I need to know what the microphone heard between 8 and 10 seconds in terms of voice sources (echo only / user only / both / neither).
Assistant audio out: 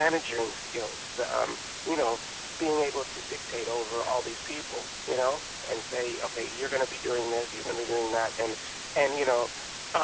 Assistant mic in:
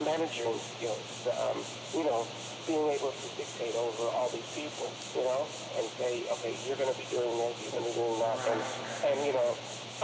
both